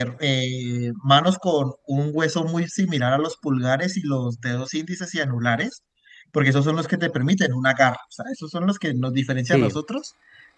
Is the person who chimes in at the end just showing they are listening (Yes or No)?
Yes